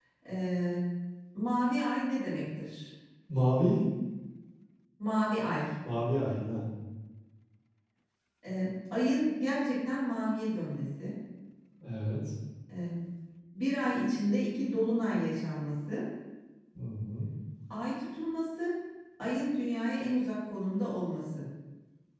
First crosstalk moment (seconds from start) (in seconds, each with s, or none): none